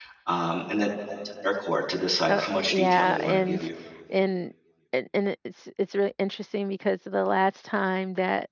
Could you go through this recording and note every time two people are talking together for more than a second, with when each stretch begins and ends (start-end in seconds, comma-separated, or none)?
2.3-3.7